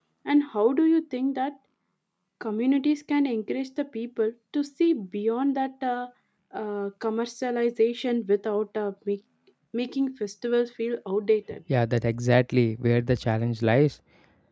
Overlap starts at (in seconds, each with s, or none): none